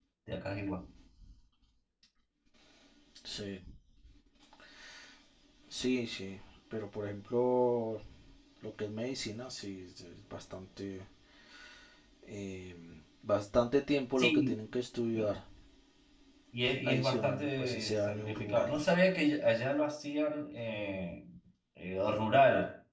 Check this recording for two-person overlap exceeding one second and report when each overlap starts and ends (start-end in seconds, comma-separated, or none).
16.8-18.7